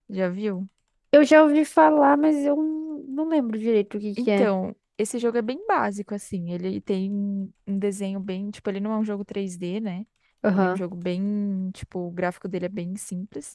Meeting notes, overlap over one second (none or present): none